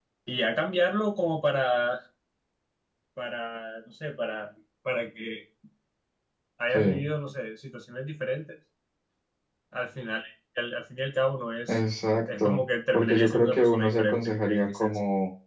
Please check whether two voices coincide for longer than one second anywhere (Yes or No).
Yes